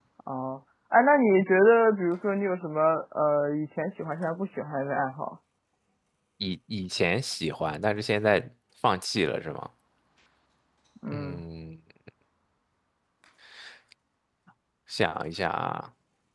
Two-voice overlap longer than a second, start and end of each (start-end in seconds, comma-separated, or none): none